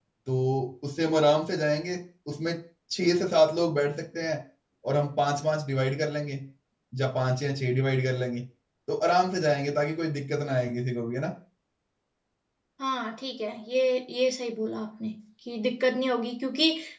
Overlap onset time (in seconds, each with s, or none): none